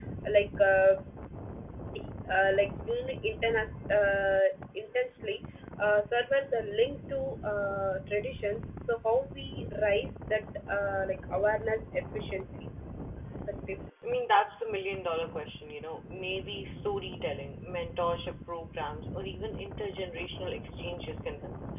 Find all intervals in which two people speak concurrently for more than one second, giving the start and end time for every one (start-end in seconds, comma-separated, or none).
none